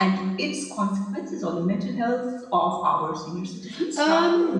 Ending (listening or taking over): taking over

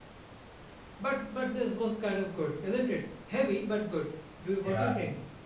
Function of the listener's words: taking over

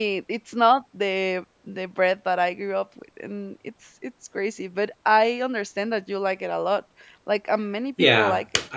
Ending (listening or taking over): taking over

